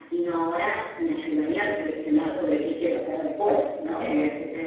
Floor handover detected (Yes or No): No